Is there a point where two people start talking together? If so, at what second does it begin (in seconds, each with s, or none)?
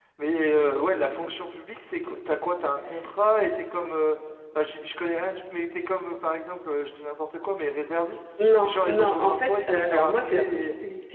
8.4 s